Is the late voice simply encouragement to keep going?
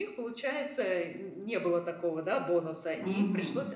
Yes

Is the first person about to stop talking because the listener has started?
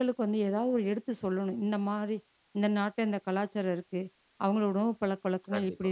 No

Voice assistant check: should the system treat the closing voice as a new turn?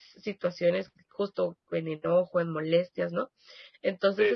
No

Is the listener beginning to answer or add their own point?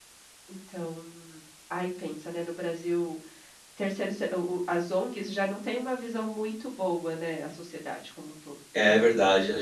Yes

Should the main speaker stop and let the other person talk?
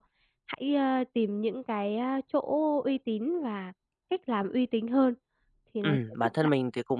Yes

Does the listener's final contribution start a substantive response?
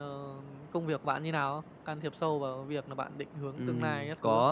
Yes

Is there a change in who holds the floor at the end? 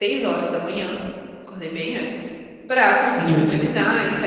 No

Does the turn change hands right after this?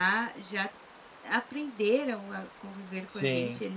No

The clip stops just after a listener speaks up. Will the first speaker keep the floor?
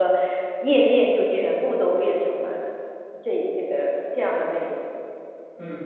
No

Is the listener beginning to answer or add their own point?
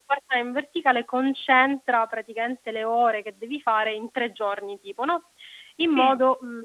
No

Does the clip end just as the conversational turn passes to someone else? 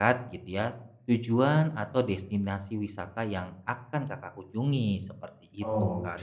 Yes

